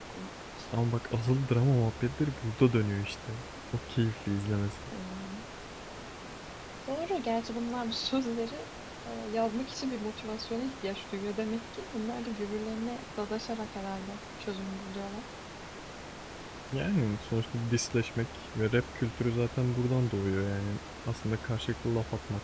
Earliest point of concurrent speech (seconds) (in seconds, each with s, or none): none